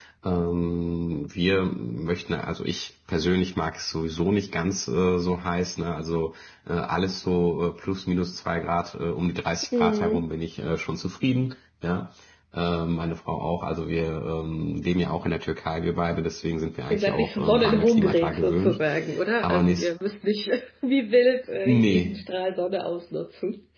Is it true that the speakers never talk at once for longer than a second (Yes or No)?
No